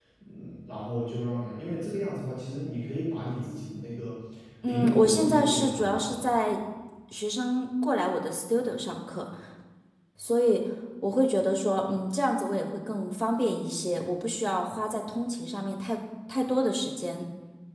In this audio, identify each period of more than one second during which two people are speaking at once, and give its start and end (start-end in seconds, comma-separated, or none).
4.6-6.3